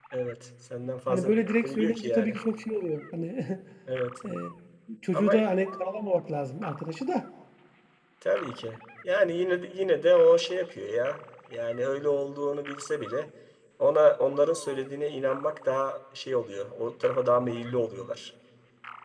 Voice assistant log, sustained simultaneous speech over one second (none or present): present